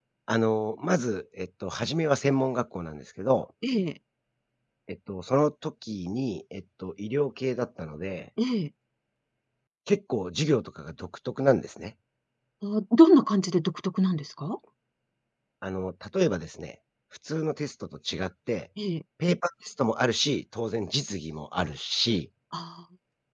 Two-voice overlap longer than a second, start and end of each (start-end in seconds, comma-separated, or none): none